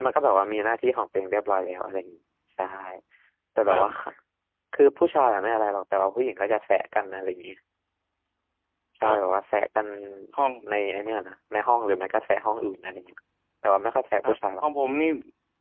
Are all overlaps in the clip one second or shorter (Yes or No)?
Yes